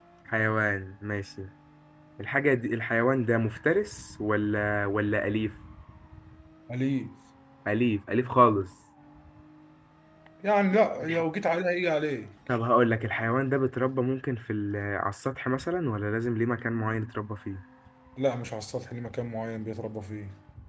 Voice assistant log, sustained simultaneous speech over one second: none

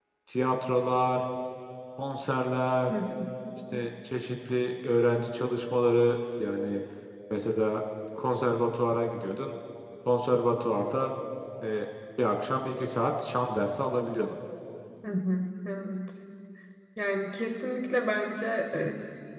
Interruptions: none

